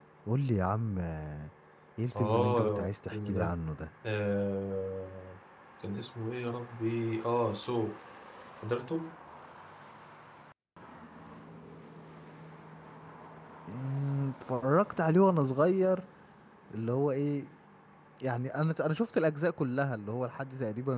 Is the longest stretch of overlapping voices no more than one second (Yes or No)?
No